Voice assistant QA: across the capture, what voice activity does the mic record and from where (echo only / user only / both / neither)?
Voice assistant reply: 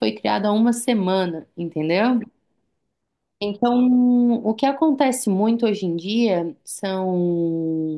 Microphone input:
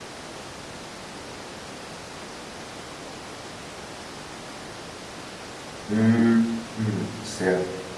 user only